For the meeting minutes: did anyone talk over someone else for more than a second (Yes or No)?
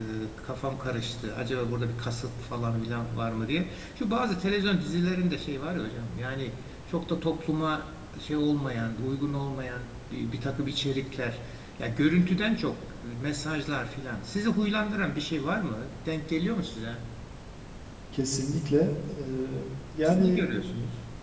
No